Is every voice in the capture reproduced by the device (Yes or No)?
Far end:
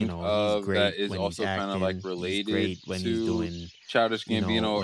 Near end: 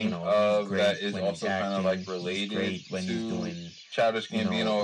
Yes